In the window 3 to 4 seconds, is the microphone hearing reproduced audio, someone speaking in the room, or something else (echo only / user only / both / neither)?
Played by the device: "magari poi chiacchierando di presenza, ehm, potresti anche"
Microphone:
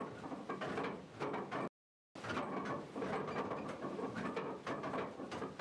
neither